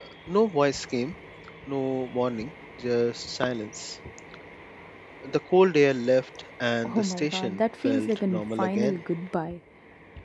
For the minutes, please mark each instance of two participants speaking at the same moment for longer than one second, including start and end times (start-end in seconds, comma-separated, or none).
6.9-9.0